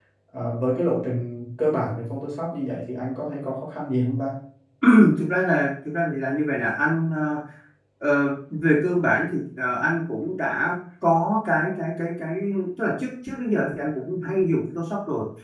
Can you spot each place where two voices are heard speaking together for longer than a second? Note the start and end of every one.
none

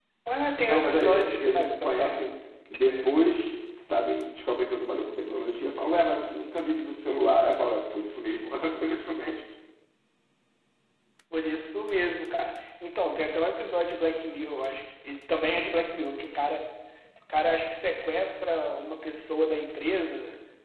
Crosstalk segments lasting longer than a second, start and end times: 0.6-2.3

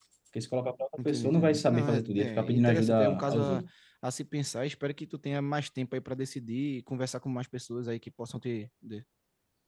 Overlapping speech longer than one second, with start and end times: 1.1-3.6

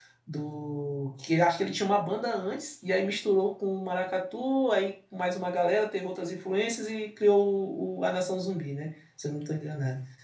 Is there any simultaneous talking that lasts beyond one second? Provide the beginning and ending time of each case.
none

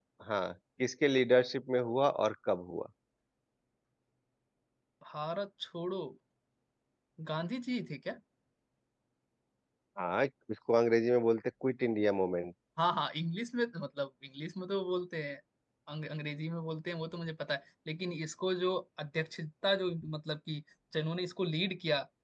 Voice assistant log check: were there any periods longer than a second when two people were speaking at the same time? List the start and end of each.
none

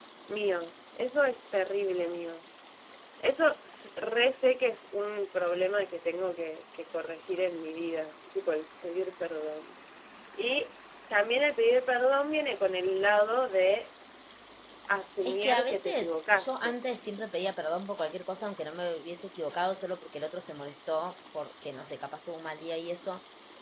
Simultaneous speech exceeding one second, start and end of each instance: 15.2-16.8

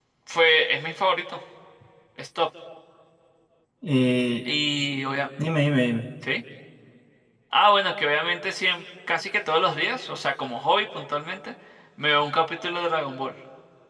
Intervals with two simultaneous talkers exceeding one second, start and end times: none

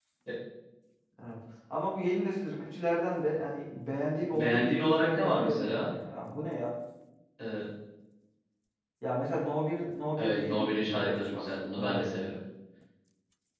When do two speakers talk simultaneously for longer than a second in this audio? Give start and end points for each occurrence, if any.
4.3-5.9, 10.2-12.4

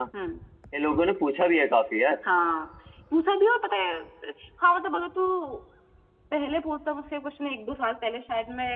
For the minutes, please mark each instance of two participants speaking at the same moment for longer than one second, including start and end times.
none

